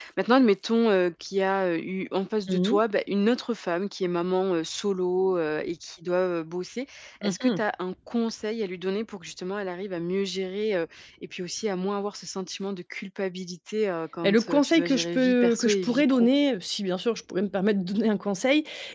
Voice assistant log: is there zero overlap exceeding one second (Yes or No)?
No